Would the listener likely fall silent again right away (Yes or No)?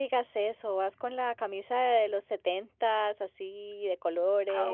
No